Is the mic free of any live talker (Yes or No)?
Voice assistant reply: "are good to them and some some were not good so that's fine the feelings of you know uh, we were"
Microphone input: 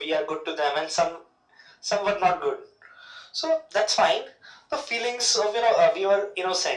Yes